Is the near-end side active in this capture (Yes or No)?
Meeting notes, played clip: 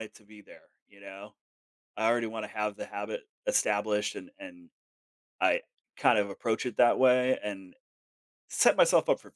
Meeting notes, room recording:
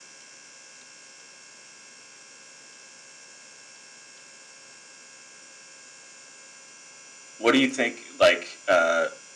Yes